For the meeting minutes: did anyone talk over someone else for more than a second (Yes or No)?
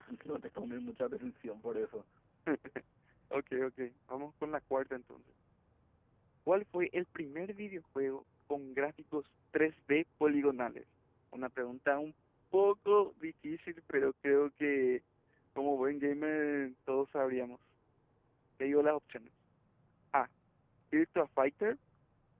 No